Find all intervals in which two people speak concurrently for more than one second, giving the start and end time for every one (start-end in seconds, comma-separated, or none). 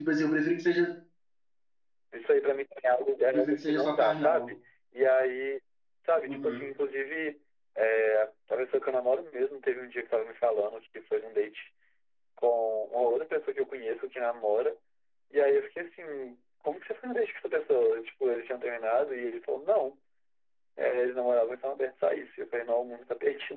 3.3-4.5